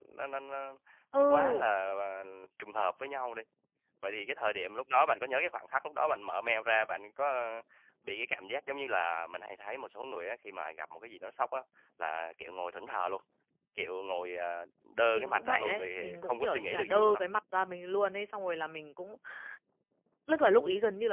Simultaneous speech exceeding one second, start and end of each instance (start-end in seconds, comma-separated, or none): 15.1-17.2